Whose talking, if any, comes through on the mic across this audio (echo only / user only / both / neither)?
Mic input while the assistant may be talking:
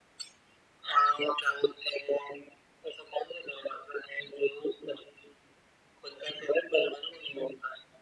echo only